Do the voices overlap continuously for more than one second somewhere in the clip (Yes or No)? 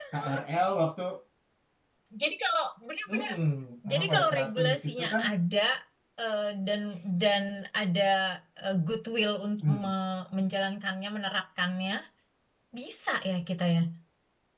Yes